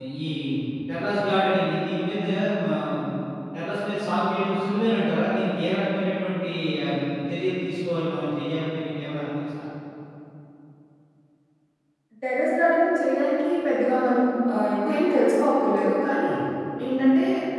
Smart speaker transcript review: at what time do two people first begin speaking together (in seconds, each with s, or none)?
none